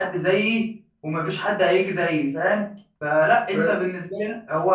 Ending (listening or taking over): listening